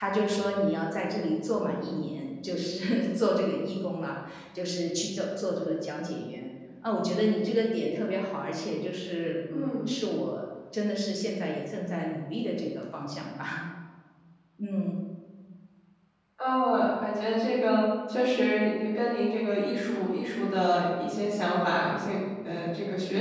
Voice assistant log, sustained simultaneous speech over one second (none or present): none